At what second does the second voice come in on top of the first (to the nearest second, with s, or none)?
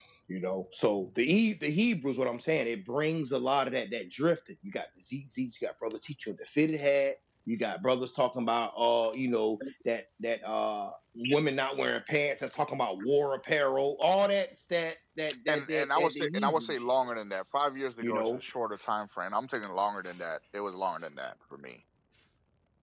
15 s